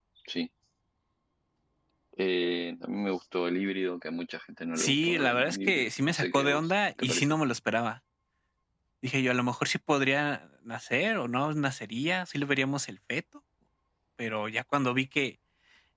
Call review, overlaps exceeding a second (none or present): present